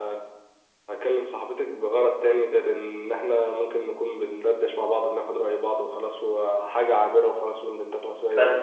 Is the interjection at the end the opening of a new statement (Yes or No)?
Yes